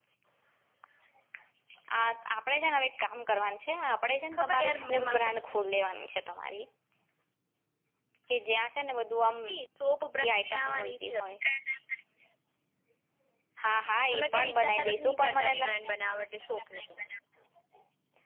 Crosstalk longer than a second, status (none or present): present